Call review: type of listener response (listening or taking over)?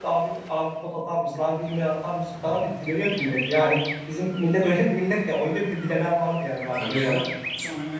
taking over